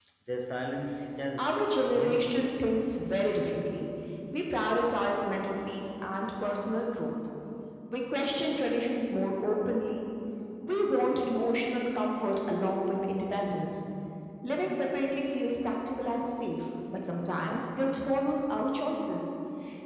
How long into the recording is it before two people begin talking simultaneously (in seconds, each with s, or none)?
1.4 s